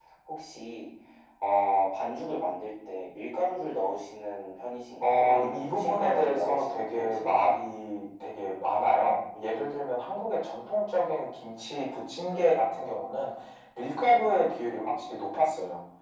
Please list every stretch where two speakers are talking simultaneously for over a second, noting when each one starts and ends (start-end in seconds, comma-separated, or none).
5.0-7.6